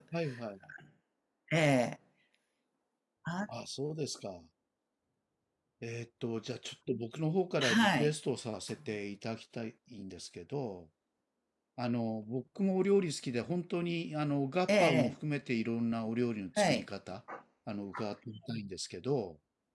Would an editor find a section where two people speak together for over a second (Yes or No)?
No